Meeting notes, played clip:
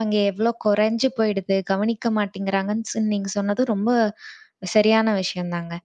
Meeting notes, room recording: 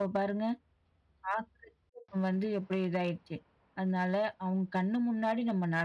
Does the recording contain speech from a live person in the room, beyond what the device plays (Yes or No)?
Yes